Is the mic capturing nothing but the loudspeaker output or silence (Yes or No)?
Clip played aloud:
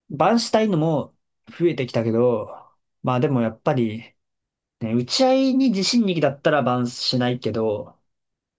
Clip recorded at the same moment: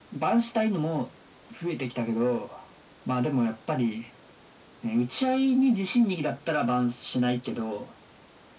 Yes